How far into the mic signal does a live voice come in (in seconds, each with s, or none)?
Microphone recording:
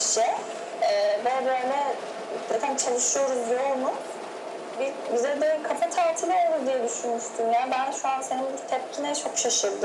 none